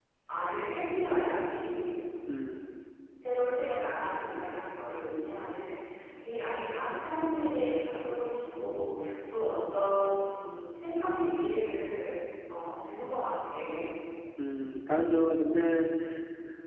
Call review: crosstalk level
none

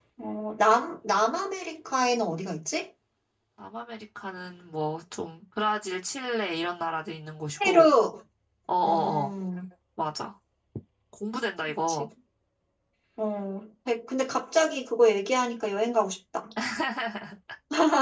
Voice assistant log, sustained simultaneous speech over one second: none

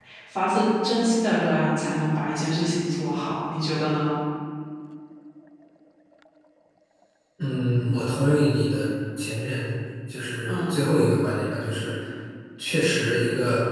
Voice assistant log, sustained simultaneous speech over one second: none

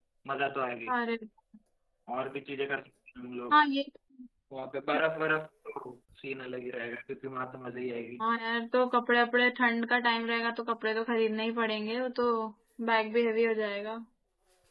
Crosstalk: none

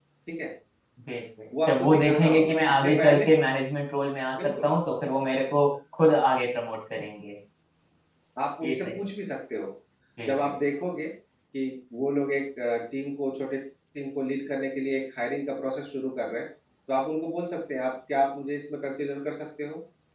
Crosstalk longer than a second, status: present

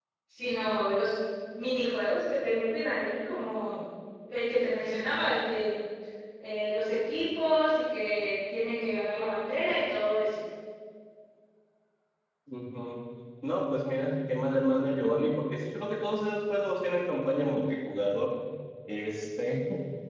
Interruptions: none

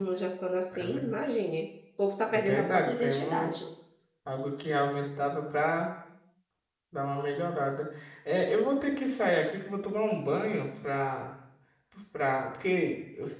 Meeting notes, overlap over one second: present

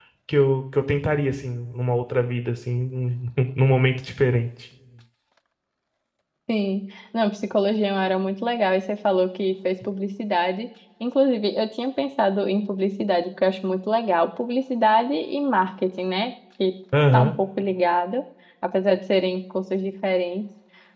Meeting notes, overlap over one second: none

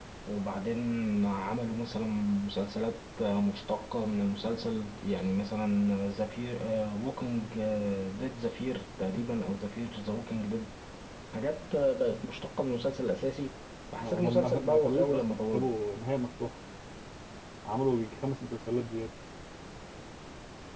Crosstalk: present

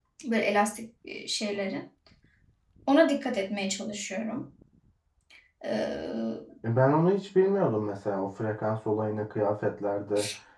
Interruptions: none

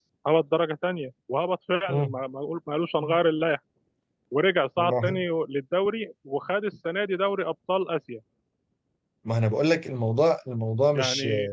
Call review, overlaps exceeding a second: none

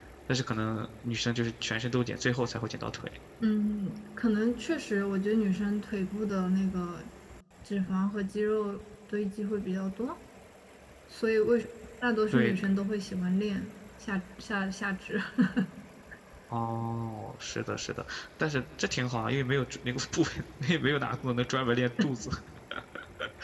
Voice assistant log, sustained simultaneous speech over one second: none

